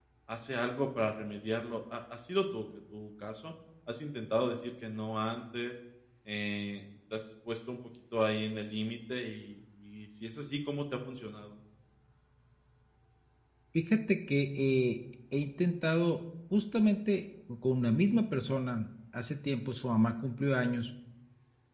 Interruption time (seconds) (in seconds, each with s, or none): none